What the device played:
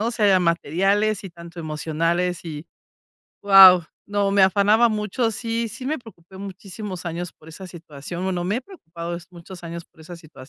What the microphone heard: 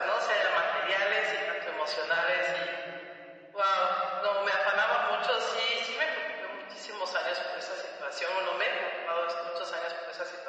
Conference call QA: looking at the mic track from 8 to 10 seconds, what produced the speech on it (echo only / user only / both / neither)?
echo only